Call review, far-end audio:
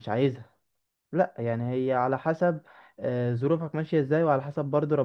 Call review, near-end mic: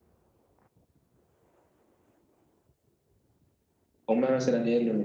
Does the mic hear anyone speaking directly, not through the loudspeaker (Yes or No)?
Yes